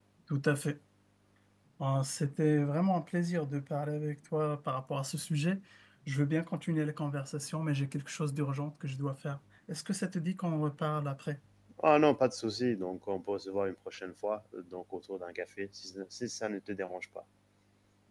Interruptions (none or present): none